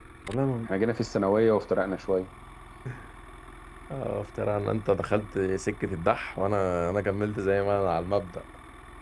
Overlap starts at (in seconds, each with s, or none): none